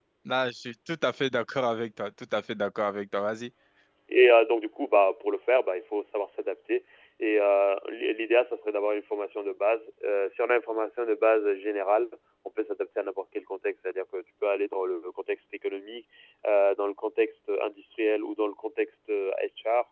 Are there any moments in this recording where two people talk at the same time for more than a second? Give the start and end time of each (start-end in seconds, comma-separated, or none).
none